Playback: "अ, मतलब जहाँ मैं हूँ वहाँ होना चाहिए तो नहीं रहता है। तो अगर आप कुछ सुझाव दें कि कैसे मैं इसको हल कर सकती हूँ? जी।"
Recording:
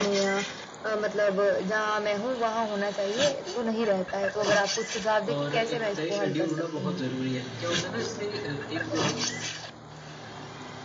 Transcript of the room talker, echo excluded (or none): और एक तय शेड्यूल होना बहुत ज़रूरी है। क्या होता है ना इससे अ, एक अ,